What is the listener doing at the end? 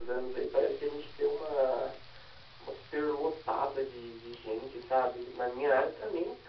listening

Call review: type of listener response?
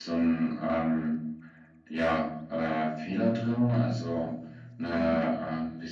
listening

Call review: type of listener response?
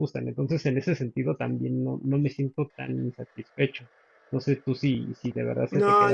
taking over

